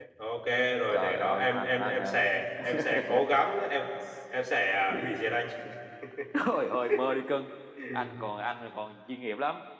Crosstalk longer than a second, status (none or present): present